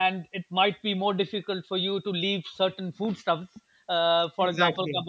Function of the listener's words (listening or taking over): listening